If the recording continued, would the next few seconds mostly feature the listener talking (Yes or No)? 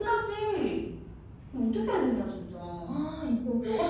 No